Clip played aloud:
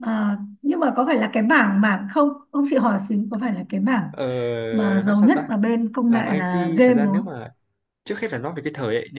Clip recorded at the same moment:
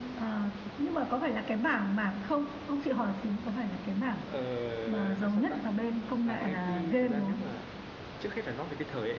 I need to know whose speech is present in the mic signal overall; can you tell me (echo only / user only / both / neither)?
echo only